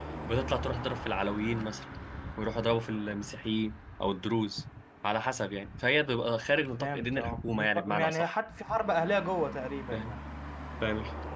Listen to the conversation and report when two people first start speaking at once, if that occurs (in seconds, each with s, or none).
6.8 s